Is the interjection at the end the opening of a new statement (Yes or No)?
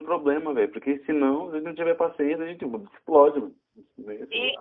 Yes